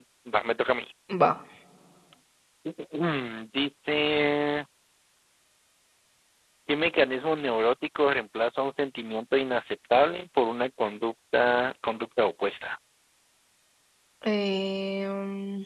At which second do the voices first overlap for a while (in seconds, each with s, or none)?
none